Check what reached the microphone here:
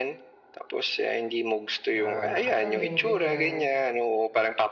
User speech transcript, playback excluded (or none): na nakatanim ganyan,